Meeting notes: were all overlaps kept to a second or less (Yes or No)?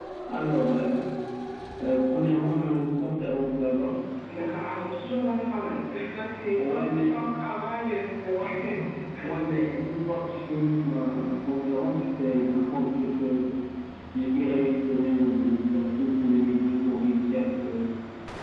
Yes